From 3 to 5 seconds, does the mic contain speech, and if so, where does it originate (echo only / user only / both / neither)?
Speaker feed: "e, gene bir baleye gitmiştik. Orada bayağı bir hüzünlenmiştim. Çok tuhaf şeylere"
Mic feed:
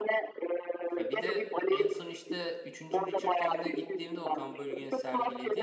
both